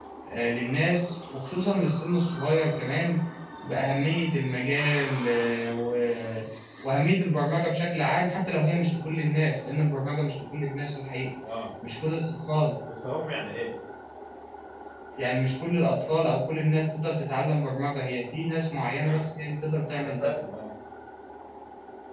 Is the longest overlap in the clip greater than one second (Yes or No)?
No